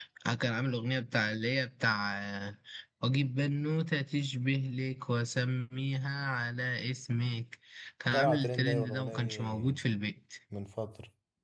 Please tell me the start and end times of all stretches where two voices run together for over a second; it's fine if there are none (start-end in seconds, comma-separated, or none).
8.1-9.8